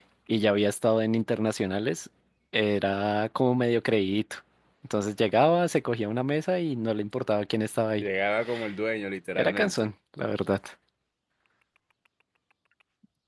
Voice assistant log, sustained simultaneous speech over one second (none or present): none